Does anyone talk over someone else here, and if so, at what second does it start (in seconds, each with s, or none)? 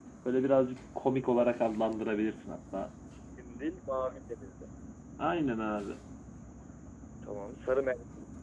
none